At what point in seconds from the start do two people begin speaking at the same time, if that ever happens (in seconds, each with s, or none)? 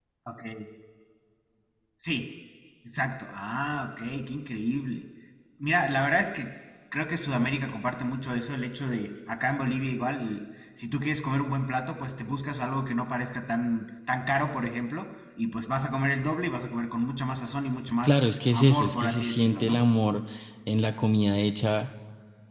18.0 s